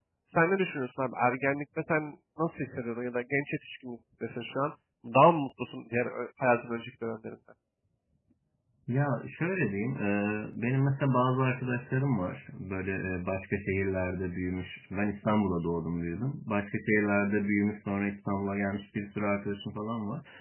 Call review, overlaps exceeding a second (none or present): none